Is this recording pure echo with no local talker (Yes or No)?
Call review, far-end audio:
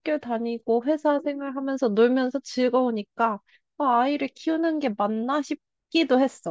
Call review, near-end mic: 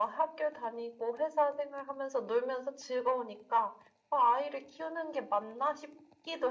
Yes